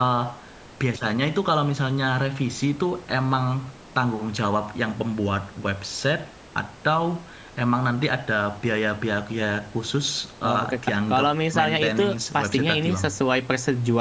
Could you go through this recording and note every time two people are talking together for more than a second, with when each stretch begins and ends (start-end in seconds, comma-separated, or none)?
10.5-13.1